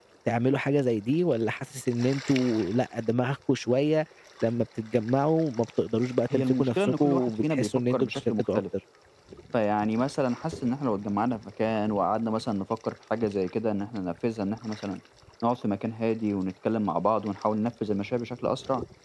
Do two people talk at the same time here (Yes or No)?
Yes